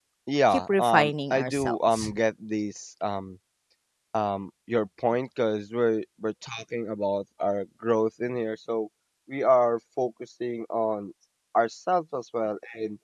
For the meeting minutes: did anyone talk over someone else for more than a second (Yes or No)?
Yes